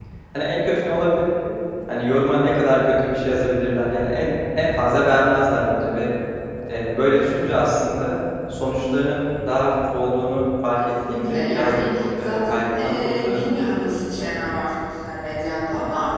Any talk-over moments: Yes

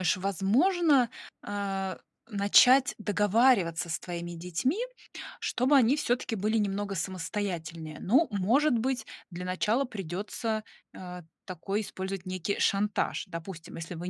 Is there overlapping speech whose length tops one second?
No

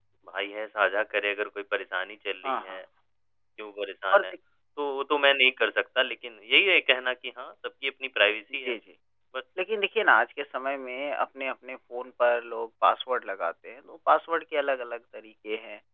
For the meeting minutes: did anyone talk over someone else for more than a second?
No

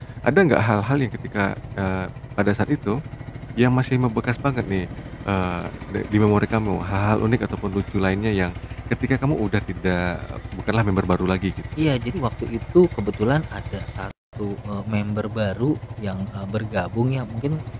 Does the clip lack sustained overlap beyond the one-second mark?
Yes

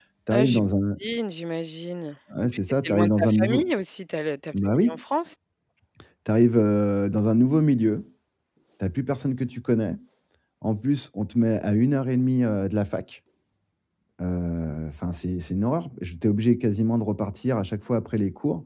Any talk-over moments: Yes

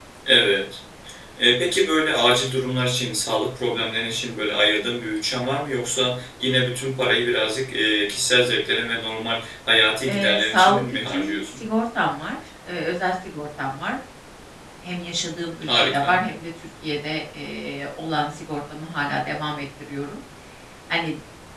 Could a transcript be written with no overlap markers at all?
No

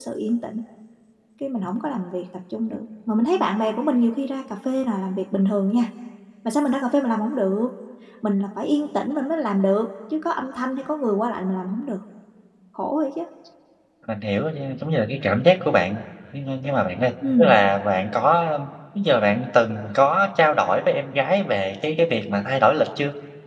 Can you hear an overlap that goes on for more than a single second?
No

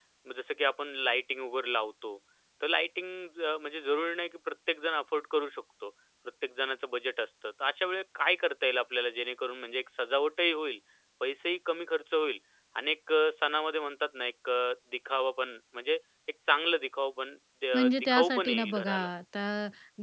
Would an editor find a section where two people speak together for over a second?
Yes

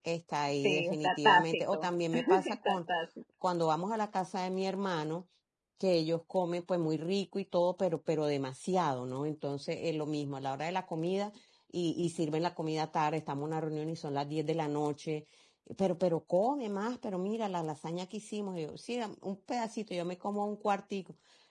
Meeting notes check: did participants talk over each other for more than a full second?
Yes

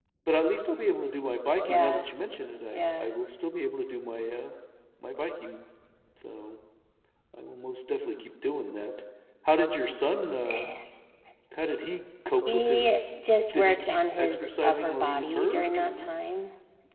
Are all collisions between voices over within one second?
No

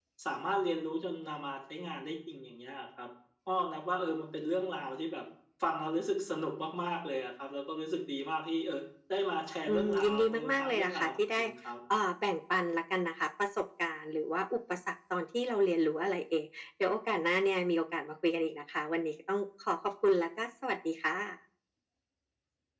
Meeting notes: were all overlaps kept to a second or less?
No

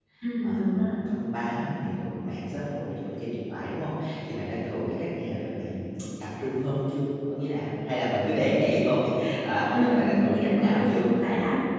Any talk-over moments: Yes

